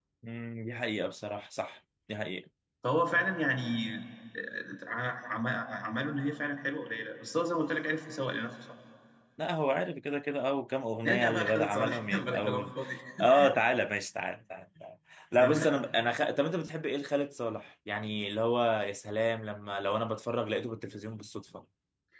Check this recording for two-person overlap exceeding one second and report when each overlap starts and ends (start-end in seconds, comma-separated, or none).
11.0-12.7